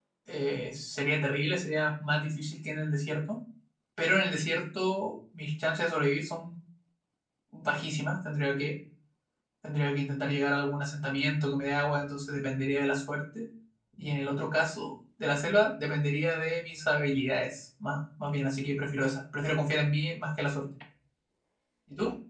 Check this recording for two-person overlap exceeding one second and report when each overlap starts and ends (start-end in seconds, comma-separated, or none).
none